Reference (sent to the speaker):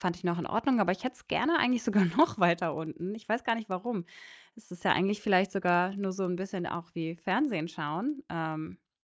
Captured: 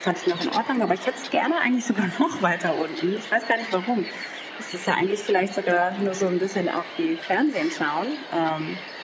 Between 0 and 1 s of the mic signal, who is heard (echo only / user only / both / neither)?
echo only